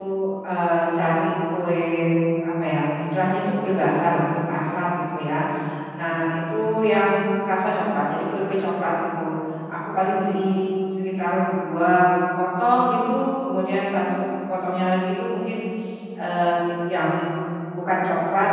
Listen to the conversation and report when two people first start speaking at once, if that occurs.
none

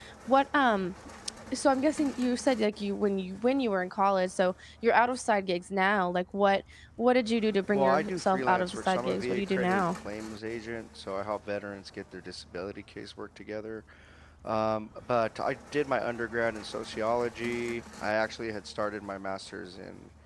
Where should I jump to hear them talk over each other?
7.7 s

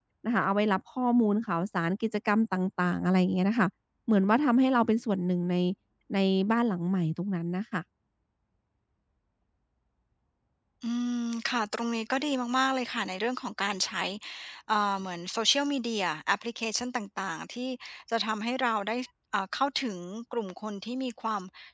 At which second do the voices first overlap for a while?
none

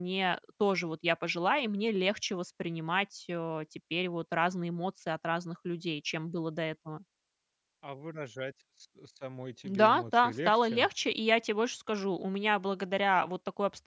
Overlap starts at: 9.7 s

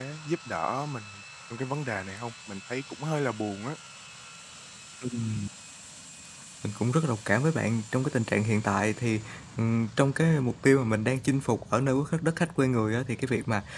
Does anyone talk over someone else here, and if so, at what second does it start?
none

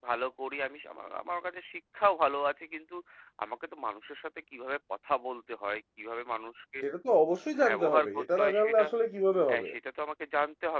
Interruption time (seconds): 7.7 s

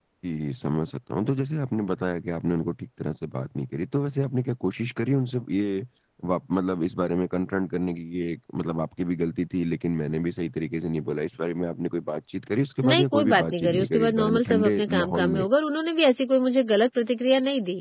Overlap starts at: 12.8 s

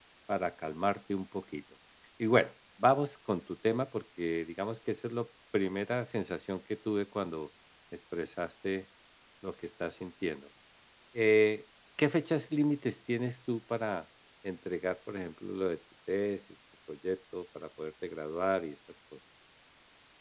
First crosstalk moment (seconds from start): none

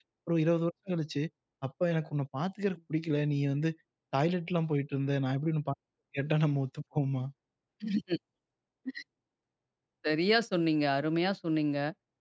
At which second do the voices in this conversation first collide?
none

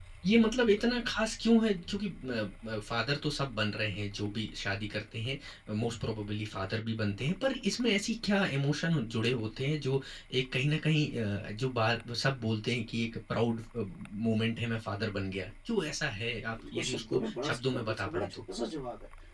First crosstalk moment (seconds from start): 16.5 s

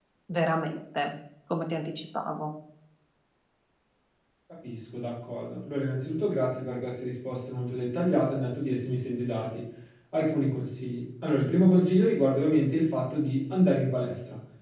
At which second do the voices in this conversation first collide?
none

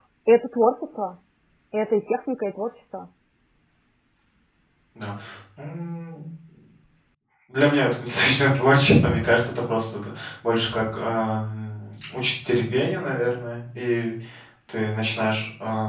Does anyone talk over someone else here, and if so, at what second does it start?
none

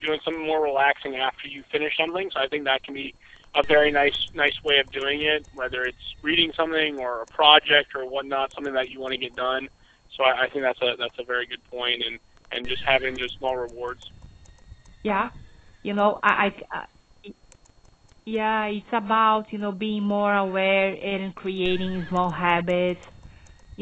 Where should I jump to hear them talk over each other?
none

